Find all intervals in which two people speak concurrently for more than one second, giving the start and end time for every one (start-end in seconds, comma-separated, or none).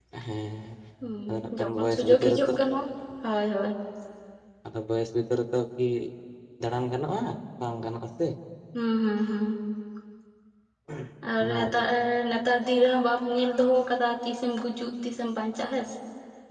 1.3-2.5